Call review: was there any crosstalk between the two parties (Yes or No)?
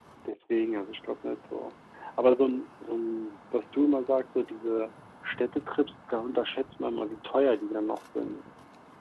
No